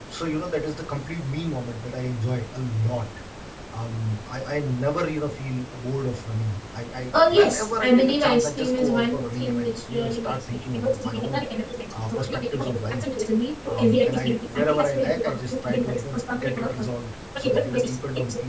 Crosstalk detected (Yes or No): Yes